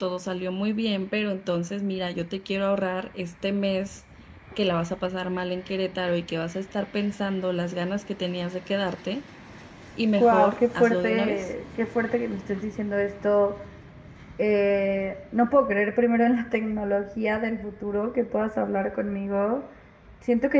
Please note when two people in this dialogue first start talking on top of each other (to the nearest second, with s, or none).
10 s